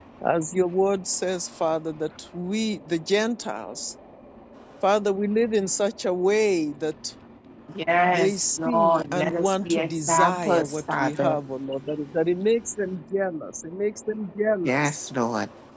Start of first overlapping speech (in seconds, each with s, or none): 8.1 s